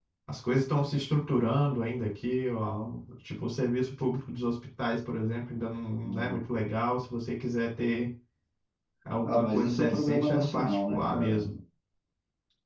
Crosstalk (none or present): present